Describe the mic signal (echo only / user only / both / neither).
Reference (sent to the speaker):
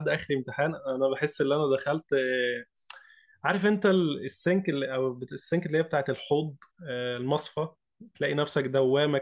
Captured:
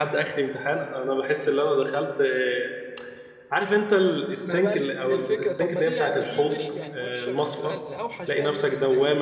both